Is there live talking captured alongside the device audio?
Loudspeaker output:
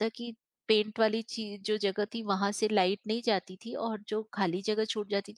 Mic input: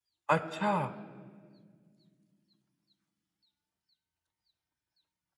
Yes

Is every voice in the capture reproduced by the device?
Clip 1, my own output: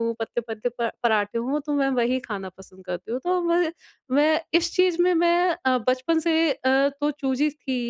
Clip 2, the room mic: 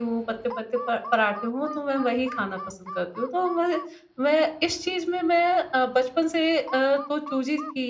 Yes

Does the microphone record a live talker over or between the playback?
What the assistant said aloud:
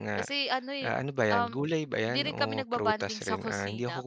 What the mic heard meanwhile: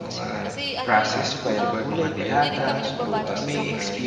Yes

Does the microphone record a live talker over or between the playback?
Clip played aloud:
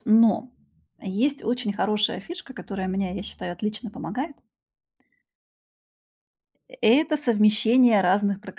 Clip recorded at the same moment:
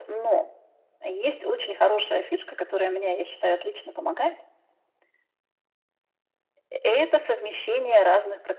No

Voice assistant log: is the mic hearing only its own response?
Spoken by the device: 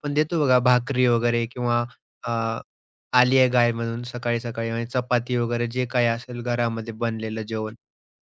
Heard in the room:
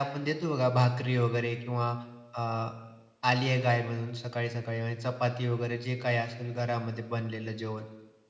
Yes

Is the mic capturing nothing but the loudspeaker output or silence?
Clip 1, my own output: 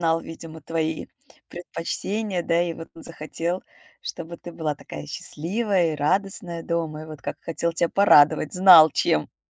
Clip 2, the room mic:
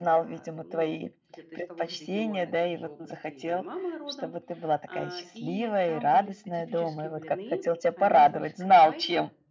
No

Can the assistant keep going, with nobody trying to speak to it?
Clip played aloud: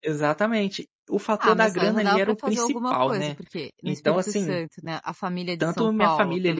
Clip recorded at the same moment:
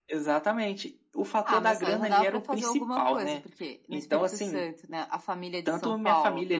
Yes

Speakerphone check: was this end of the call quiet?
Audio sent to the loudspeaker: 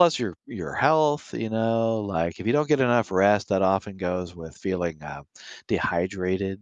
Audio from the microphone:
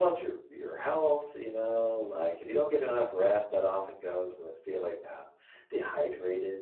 Yes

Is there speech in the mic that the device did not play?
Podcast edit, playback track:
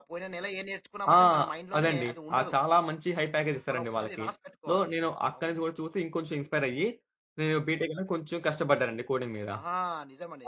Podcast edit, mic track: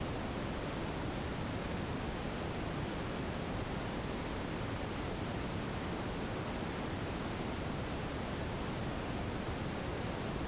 No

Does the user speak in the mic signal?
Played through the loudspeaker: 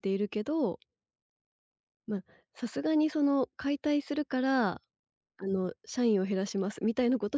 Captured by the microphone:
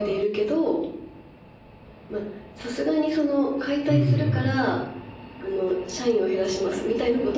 Yes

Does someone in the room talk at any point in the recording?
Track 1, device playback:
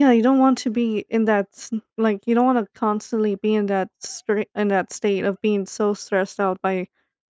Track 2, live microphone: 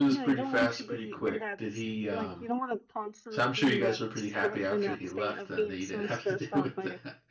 Yes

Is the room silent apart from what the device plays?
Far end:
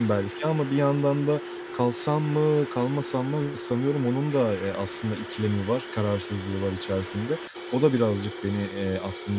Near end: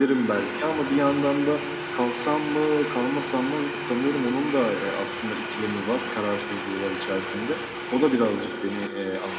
Yes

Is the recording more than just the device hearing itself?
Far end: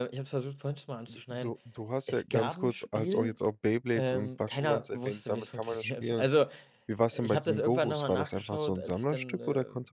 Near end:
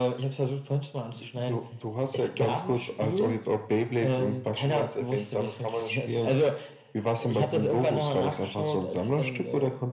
No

